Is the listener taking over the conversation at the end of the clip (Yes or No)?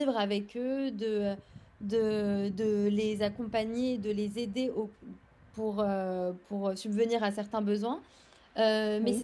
No